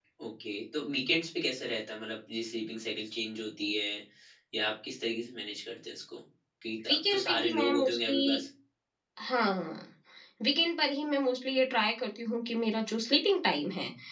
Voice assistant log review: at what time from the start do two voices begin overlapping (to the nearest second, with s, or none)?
7 s